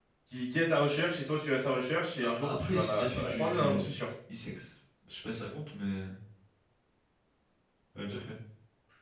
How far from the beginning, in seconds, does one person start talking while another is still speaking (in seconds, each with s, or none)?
2.2 s